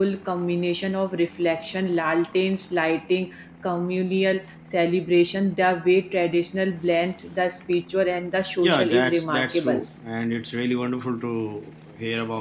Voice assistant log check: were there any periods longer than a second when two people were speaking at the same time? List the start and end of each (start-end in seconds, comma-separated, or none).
8.6-9.8